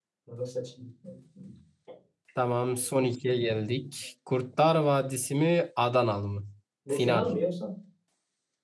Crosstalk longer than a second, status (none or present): none